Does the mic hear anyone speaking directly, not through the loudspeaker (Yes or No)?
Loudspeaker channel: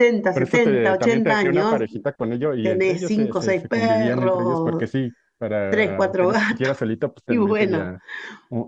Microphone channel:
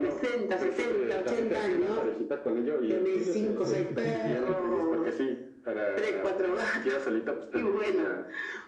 Yes